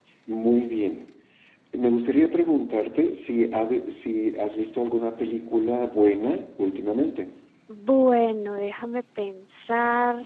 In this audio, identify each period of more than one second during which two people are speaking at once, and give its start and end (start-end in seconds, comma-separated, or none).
none